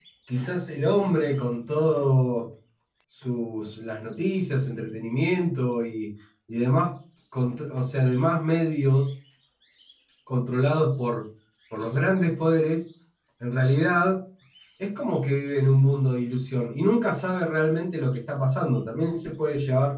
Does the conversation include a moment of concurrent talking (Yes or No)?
No